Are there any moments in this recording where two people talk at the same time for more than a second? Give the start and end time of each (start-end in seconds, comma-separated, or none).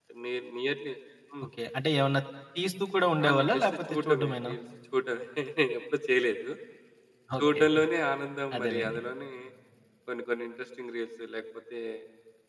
3.2-4.5